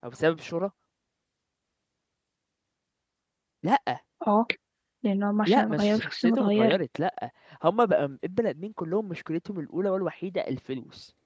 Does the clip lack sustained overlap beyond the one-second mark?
No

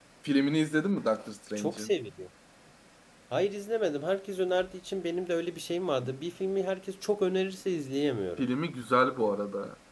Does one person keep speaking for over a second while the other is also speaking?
No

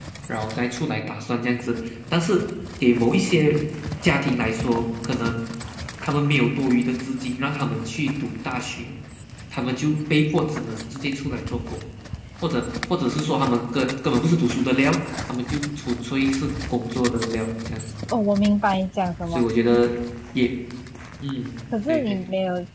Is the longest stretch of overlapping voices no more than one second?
Yes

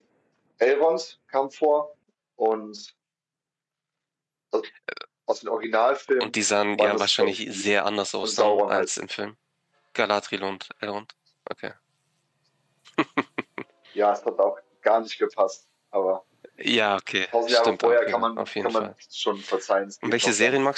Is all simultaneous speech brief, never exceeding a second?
No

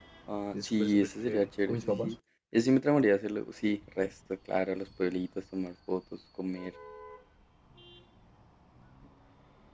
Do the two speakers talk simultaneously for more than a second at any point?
Yes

